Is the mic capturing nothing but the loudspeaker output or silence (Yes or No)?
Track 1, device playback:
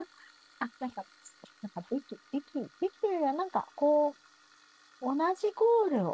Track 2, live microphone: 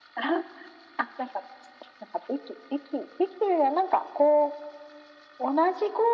Yes